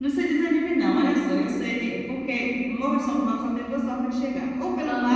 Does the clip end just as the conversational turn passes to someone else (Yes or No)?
No